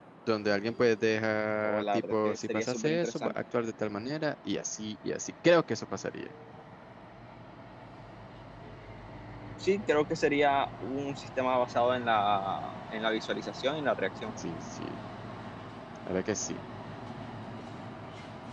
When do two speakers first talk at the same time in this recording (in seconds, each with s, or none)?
1.6 s